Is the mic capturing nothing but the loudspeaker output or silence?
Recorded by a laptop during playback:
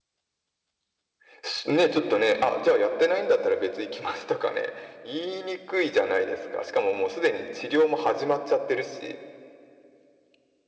Yes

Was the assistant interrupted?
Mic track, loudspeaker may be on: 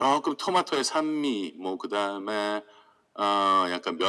No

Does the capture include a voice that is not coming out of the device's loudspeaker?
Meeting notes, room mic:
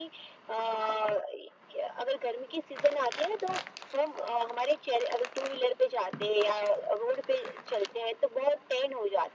No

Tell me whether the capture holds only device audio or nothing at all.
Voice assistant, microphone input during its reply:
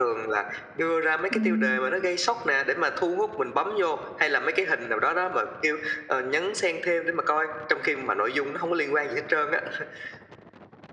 No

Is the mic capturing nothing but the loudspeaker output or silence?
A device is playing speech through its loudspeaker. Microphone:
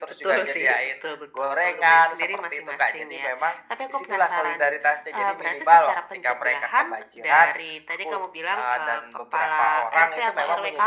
Yes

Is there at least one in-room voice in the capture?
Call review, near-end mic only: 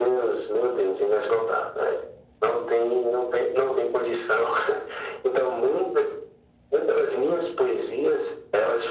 No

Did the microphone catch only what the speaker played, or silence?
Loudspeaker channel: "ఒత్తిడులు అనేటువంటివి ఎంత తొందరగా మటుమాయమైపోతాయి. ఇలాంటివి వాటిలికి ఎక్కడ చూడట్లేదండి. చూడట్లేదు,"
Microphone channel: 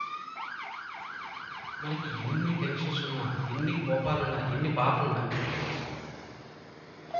No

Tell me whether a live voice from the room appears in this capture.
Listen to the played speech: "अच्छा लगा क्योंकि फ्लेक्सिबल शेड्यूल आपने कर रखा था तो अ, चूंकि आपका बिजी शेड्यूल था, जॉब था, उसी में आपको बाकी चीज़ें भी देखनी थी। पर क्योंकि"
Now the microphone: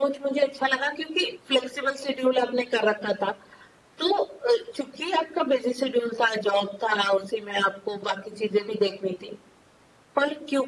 No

